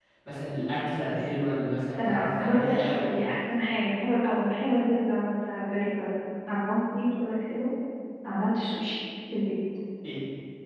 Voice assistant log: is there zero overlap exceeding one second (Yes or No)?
No